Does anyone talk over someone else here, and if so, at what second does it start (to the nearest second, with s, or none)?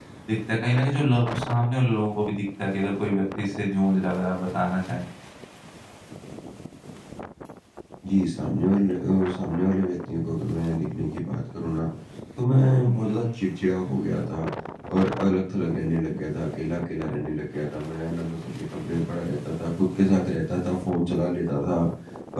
none